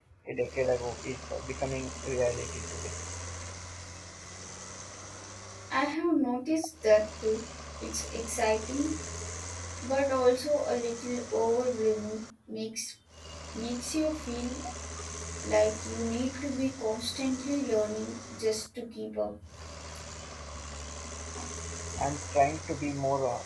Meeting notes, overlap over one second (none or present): none